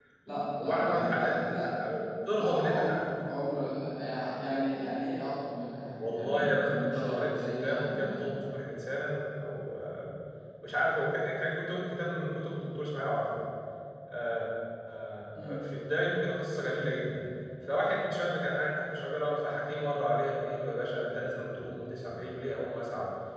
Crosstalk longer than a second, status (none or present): present